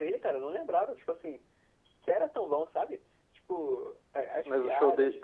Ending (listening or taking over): taking over